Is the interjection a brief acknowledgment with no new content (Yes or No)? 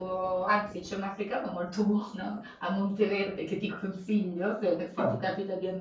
Yes